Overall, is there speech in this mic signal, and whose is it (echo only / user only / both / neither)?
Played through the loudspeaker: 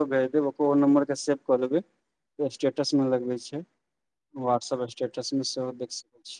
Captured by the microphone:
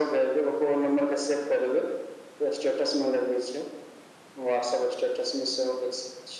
echo only